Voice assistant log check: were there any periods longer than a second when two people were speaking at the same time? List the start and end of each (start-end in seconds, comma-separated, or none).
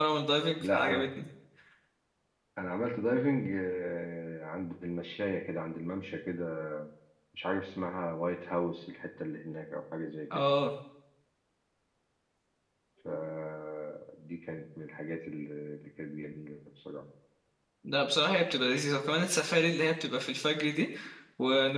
none